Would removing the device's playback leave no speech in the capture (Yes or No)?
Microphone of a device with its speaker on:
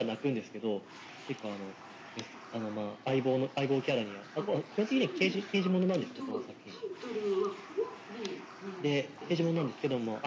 No